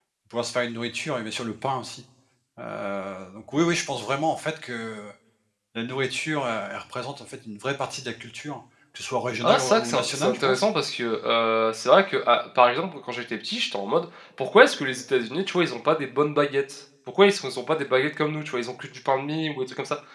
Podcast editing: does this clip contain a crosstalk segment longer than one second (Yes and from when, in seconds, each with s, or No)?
Yes, from 9.4 s